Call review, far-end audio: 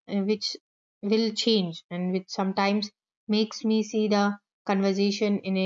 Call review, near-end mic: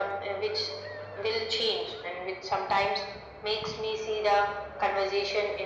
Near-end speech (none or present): none